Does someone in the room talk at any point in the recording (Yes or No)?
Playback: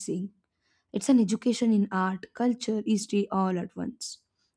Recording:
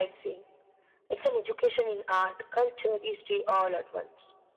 No